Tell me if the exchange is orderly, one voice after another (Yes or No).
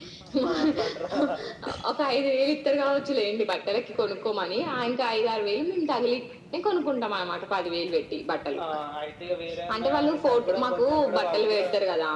No